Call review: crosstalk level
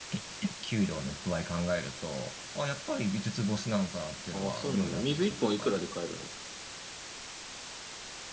present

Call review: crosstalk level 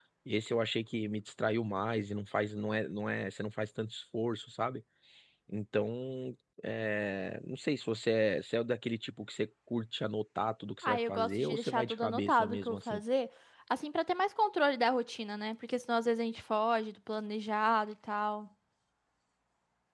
present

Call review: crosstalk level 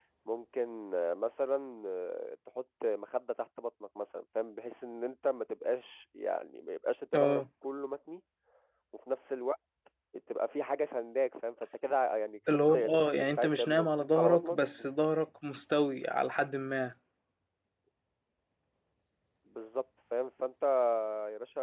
present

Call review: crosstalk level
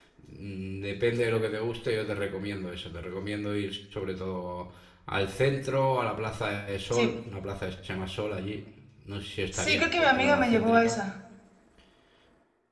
present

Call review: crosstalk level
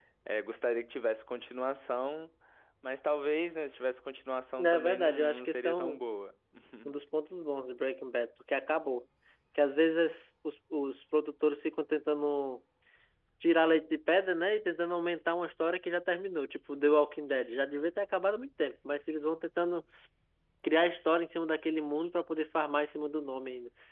present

